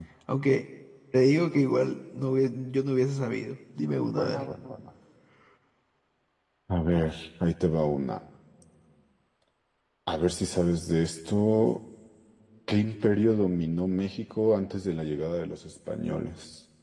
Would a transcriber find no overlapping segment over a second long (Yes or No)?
Yes